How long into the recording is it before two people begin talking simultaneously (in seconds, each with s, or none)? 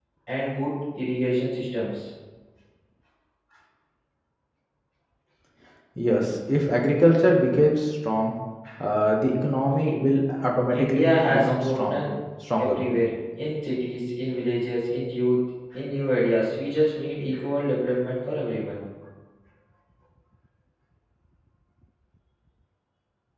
10.7 s